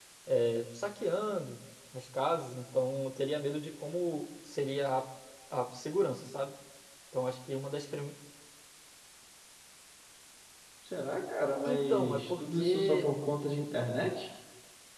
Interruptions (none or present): present